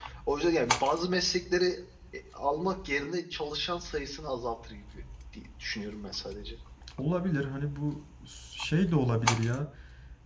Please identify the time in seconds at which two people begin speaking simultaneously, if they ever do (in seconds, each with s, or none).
none